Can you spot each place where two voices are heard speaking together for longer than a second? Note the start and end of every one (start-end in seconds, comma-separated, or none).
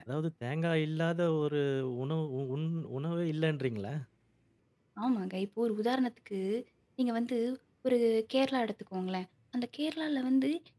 none